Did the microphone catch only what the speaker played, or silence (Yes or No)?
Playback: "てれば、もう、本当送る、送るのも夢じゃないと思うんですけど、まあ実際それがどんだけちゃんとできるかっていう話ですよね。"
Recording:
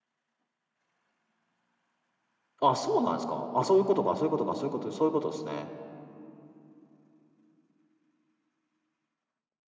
No